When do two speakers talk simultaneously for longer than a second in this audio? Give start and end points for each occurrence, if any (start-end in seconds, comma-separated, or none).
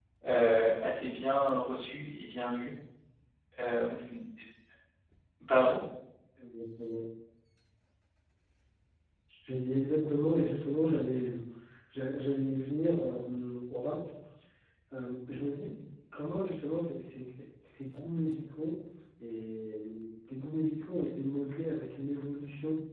none